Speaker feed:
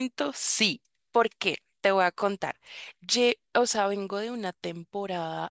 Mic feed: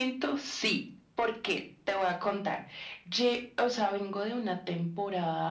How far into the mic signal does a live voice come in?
none

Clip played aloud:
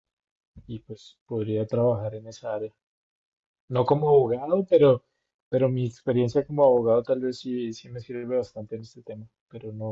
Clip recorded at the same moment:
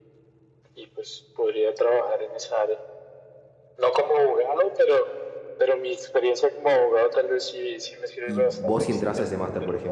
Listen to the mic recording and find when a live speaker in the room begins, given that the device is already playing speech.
8.2 s

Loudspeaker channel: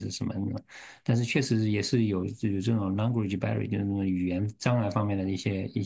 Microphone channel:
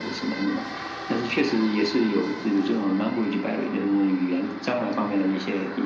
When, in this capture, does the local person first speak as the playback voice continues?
none

